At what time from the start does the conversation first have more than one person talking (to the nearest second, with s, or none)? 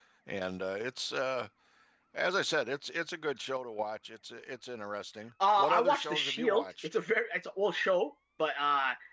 5 s